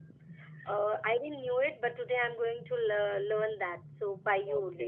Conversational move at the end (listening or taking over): taking over